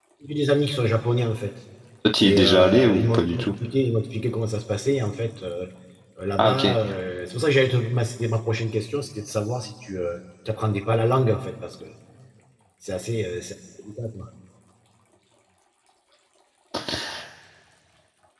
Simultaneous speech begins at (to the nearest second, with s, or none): 2 s